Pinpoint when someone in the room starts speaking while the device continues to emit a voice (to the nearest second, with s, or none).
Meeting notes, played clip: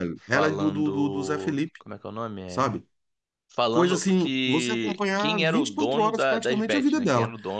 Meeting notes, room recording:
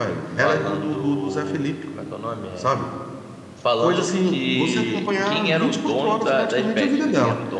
none